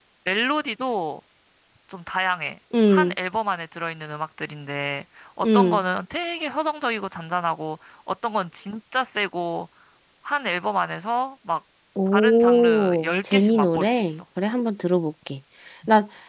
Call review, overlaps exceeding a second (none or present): present